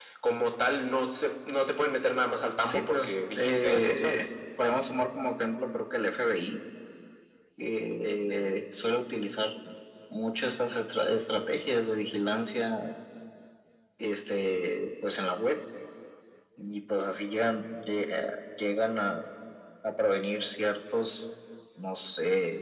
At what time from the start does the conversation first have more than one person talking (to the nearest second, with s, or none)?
3 s